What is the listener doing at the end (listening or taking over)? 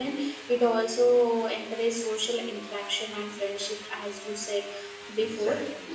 listening